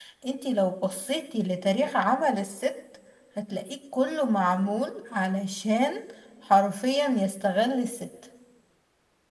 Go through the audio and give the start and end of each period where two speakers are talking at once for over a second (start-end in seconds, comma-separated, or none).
none